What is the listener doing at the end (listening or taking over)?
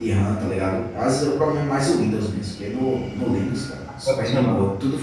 listening